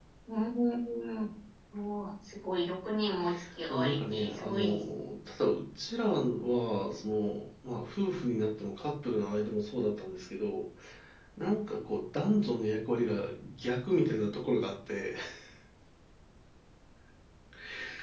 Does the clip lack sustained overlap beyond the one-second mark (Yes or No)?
No